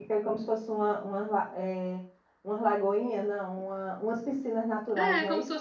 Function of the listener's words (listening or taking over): taking over